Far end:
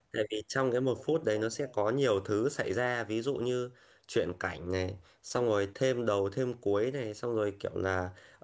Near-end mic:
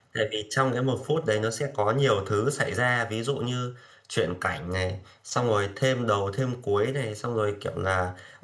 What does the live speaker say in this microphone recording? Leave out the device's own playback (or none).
none